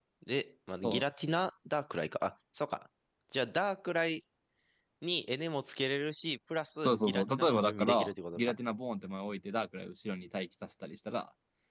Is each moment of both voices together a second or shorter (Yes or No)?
No